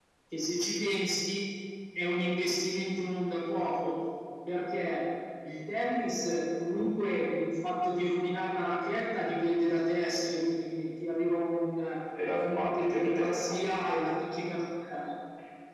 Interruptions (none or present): present